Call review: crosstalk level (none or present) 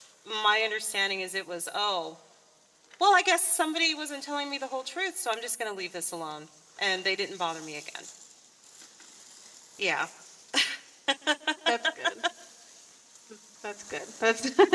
none